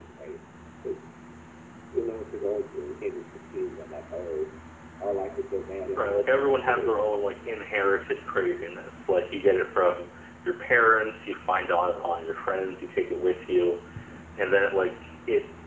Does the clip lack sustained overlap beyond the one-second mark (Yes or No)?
No